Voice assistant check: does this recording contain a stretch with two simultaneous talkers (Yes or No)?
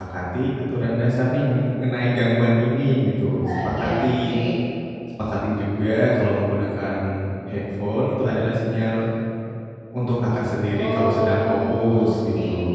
Yes